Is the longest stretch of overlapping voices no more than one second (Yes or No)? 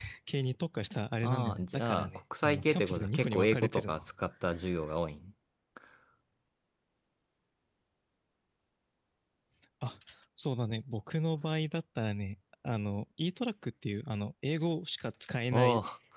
No